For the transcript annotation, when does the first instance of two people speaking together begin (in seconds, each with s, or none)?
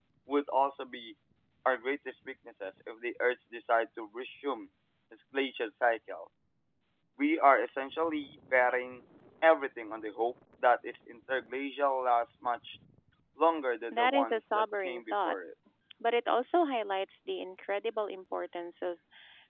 13.9 s